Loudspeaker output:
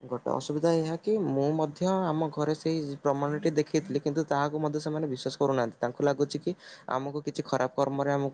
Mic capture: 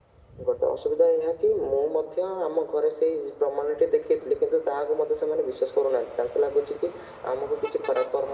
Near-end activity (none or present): none